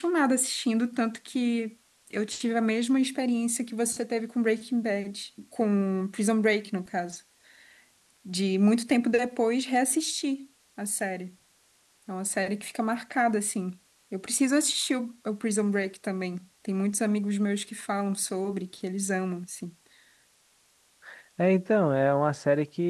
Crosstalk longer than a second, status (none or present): none